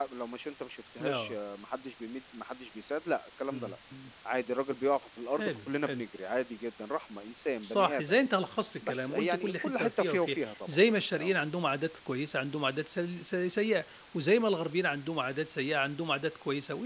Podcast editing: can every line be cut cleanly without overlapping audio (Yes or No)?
No